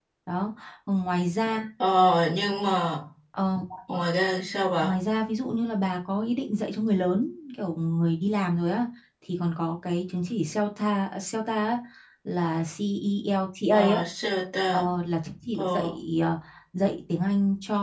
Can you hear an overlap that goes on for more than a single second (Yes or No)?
No